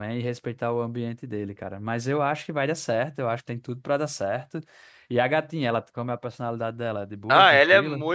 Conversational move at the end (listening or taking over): taking over